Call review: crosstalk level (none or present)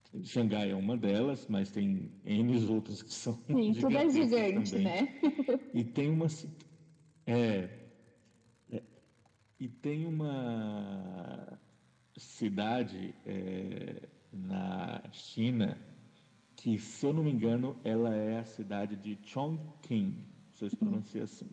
present